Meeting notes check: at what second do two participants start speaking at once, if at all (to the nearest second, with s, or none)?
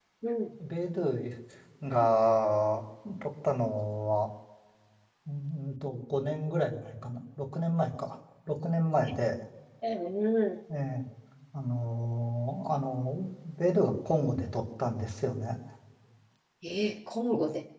none